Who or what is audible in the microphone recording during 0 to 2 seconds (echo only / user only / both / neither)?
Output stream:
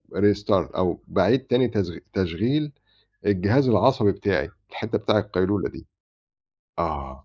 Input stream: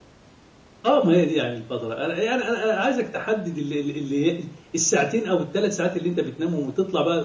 user only